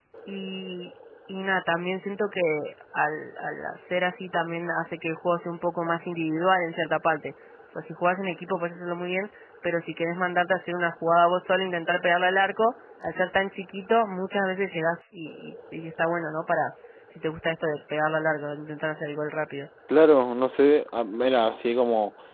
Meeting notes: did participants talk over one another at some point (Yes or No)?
No